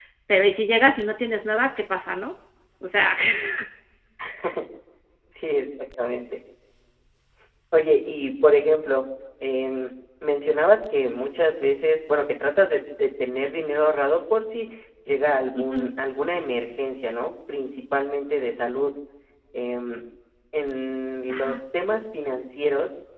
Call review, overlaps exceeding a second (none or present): none